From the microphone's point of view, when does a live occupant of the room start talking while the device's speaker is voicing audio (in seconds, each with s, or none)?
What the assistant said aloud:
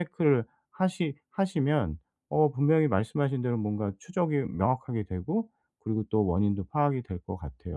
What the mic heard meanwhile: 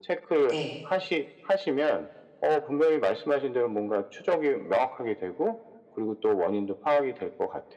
0.5 s